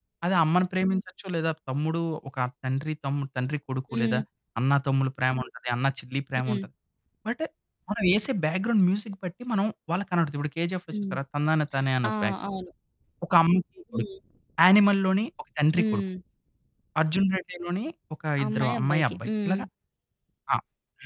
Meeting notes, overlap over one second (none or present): present